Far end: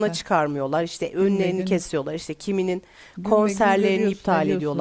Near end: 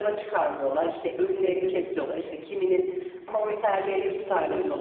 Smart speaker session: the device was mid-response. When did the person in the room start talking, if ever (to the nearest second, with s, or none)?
none